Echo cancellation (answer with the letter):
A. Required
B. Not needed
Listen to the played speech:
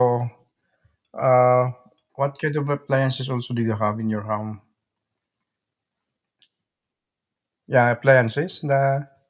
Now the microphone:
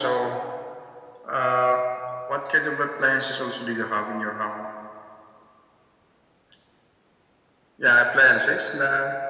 A